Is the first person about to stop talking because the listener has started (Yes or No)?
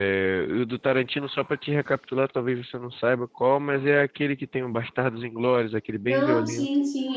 Yes